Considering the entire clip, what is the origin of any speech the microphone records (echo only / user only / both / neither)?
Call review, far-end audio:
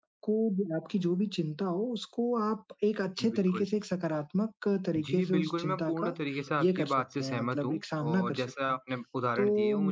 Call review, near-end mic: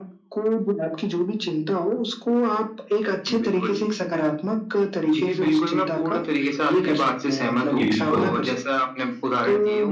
both